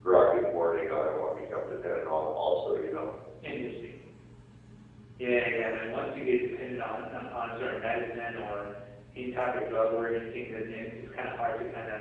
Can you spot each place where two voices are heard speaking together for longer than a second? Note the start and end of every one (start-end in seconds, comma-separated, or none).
none